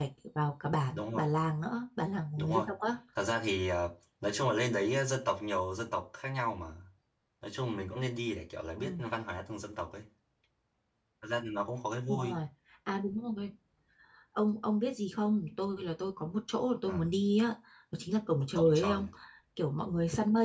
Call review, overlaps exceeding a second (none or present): none